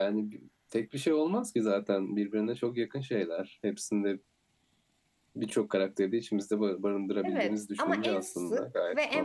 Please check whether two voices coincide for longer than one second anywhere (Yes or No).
Yes